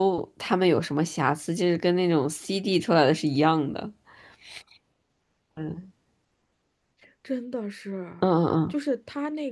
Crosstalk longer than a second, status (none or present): none